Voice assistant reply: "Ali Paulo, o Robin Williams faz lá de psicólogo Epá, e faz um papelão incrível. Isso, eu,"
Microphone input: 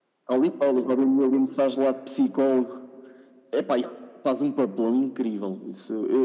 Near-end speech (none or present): none